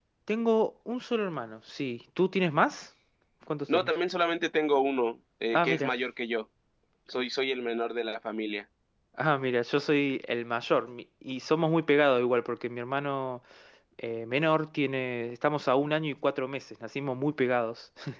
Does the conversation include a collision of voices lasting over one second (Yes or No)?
No